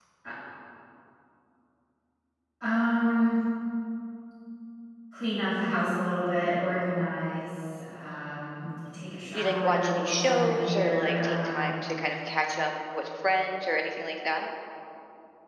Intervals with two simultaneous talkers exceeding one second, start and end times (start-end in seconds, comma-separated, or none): 9.3-11.9